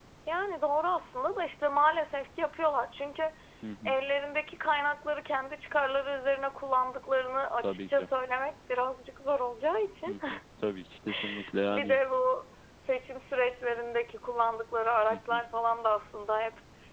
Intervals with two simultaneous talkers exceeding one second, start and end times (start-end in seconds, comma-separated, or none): none